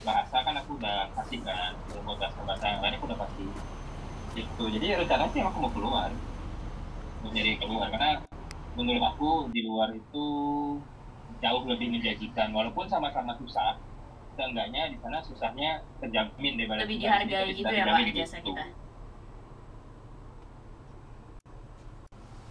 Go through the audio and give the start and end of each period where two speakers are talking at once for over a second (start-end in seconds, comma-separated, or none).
16.8-18.6